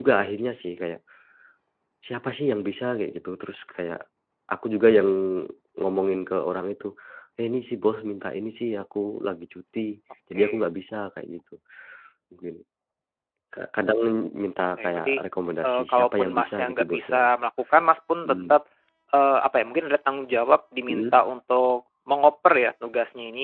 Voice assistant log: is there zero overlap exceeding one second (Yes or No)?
No